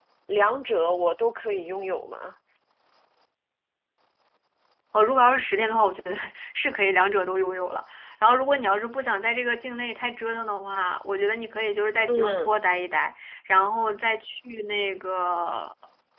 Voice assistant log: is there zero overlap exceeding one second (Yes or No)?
Yes